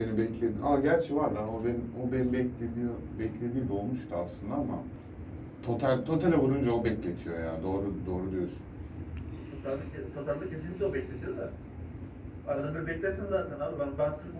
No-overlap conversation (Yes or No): Yes